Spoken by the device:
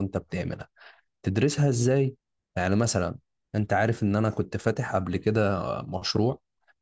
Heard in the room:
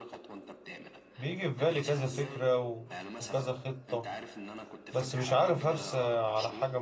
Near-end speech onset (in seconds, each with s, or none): 1.2 s